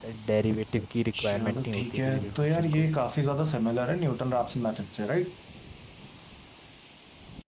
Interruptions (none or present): present